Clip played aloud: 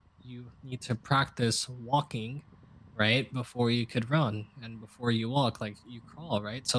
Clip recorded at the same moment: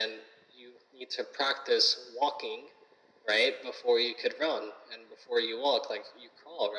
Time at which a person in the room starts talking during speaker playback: none

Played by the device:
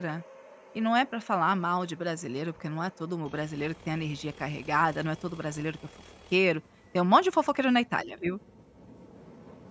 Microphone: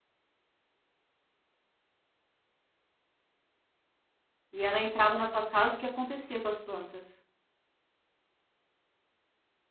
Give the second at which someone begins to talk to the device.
4.5 s

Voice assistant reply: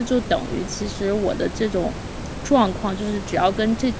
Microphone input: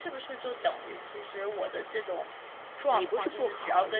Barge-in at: 2.9 s

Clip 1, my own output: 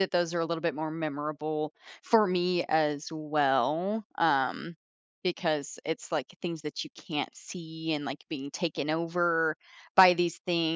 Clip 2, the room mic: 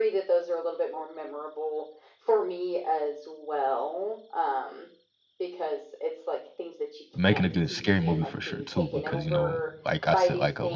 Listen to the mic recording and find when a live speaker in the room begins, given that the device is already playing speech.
7.1 s

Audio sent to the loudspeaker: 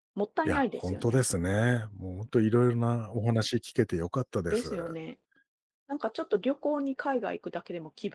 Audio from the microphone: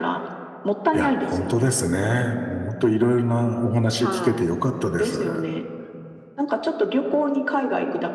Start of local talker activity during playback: 4.0 s

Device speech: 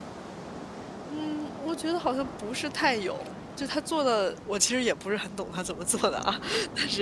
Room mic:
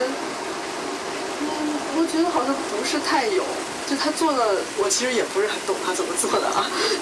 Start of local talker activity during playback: none

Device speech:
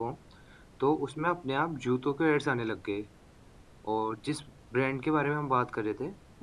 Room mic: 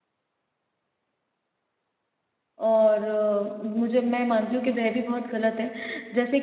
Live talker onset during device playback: 2.7 s

